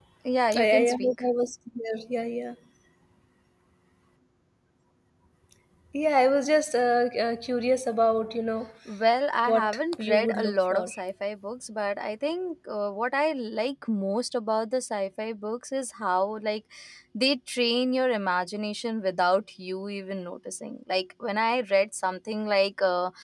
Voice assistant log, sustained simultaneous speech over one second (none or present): present